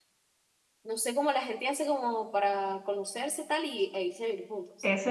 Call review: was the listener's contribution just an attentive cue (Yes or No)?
No